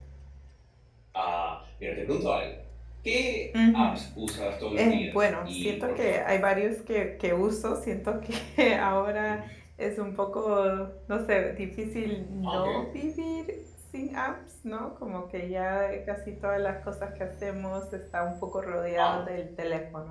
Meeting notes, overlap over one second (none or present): present